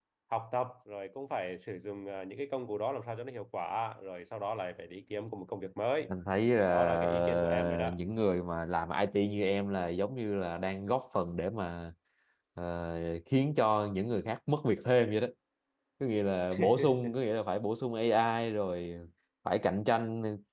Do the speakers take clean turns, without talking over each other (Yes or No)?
No